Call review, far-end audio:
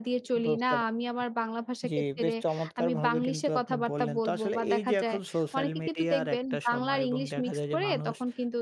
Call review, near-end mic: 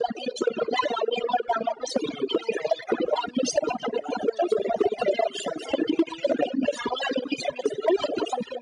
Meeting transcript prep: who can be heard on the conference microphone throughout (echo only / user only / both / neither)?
echo only